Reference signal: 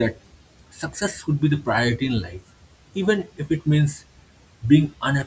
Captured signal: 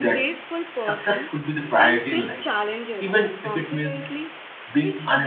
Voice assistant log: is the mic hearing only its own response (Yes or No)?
No